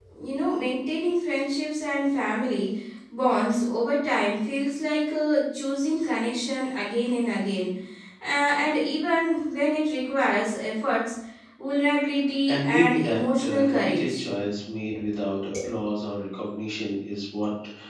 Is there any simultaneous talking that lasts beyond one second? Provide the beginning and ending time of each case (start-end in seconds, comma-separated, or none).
12.5-14.1